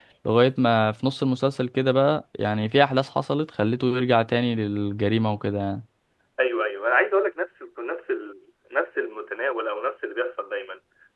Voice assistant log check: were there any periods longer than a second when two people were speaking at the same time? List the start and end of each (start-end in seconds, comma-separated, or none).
none